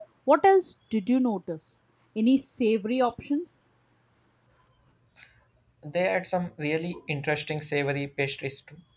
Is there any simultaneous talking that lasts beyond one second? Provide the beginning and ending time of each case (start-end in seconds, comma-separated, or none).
none